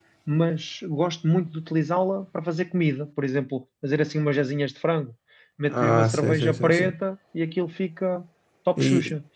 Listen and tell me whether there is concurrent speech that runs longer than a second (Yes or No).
Yes